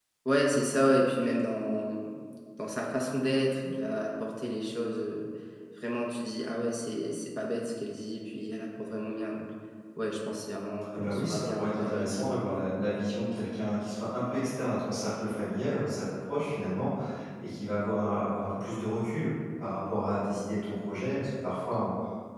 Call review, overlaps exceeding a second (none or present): present